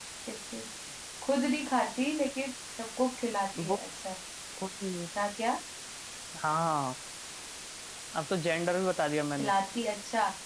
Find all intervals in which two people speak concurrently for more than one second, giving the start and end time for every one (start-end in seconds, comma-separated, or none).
none